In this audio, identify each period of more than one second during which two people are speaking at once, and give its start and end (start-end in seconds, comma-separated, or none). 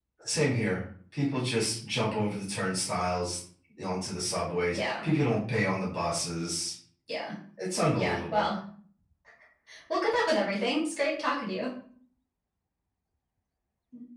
none